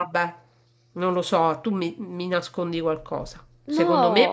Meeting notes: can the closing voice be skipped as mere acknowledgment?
Yes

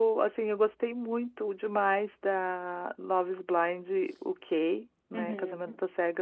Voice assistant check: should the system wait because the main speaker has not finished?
Yes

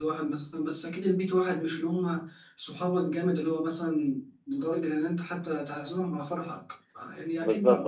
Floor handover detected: No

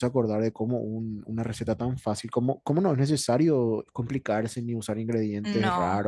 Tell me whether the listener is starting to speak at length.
No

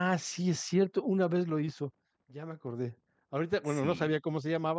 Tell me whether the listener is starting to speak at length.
No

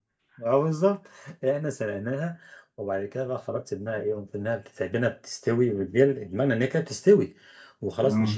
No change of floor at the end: Yes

